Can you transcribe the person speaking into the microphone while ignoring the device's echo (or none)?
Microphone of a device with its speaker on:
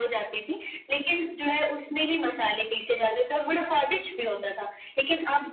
none